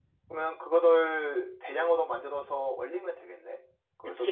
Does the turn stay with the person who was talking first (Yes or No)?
No